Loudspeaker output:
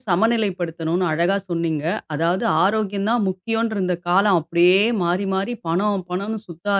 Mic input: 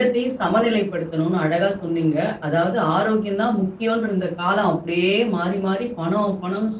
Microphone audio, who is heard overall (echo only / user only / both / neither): echo only